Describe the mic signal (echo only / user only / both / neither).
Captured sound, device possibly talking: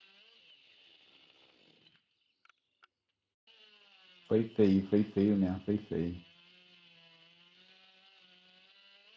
user only